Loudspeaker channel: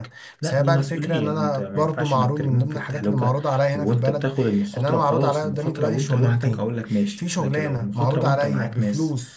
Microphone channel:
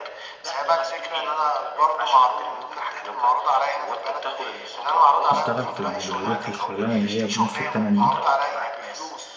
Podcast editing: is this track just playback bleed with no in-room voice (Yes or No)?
No